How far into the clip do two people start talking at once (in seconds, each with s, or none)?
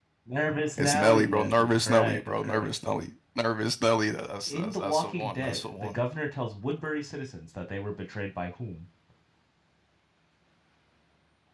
0.8 s